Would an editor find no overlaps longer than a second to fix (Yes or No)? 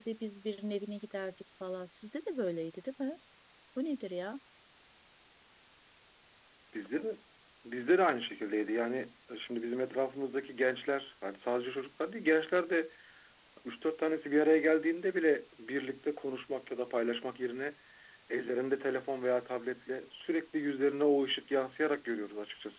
Yes